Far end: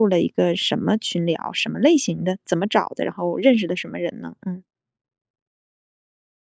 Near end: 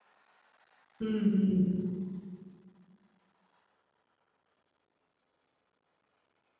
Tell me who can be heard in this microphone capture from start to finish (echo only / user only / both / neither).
user only